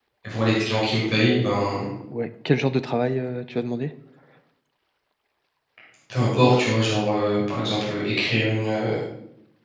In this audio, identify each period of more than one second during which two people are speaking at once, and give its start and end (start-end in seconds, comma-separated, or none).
none